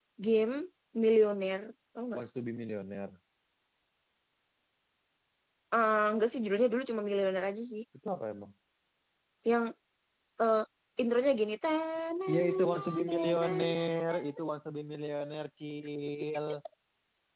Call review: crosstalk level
present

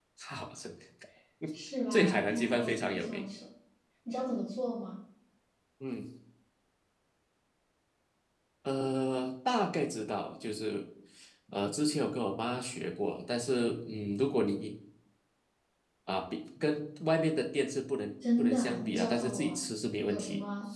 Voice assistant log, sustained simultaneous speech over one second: present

